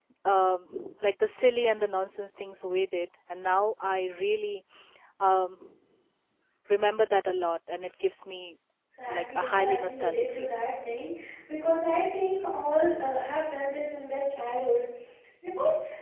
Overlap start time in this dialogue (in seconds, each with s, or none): 9.1 s